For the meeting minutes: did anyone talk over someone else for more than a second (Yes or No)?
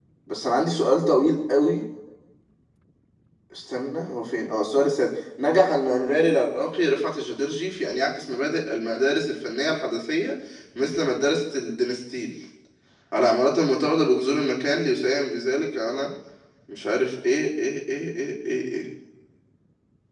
No